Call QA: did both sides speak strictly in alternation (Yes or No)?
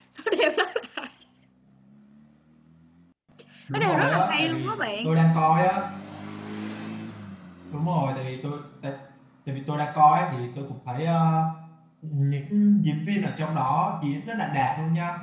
No